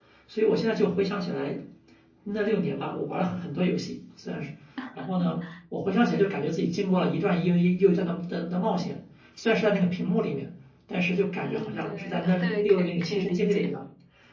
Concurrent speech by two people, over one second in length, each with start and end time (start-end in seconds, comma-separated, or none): 11.4-13.7